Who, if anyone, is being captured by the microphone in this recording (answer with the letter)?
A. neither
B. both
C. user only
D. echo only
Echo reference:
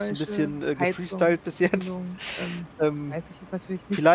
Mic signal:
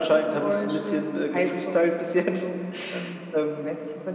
D